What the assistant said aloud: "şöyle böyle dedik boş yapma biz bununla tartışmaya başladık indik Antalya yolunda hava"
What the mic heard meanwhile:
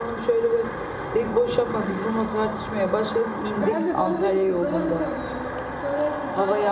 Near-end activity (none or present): present